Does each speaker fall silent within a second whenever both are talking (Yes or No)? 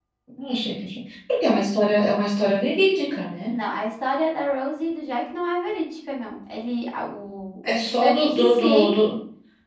No